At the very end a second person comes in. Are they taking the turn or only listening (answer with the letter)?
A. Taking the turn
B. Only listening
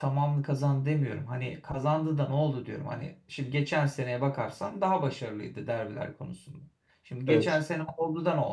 B